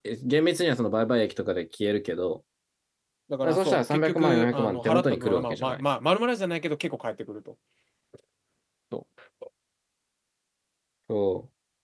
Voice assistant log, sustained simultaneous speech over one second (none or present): present